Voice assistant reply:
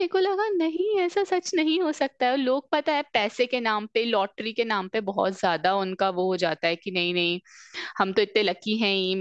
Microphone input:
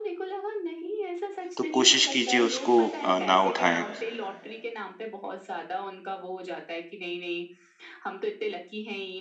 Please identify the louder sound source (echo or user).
user